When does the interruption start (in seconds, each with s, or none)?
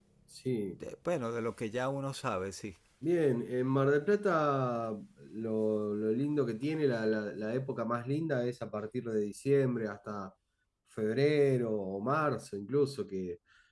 none